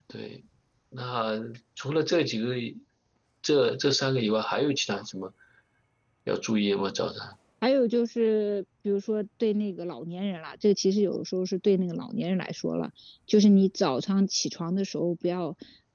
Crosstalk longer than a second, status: none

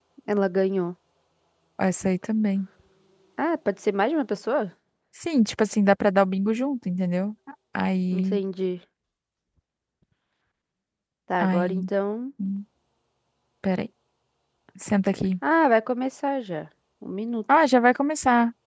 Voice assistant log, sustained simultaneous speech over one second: none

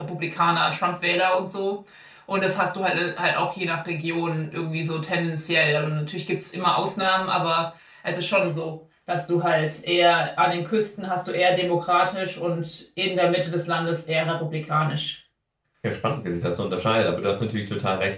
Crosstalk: none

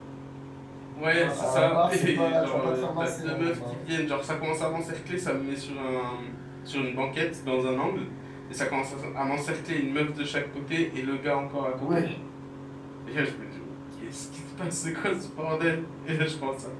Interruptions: present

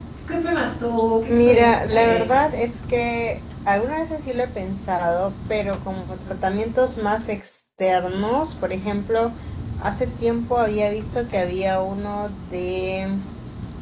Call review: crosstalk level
present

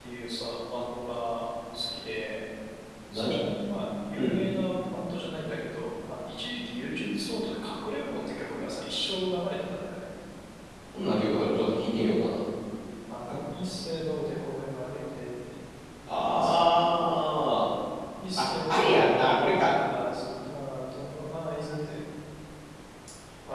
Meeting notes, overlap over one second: present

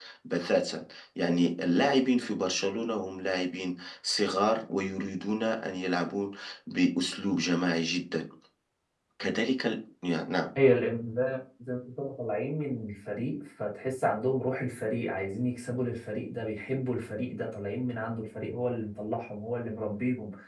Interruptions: none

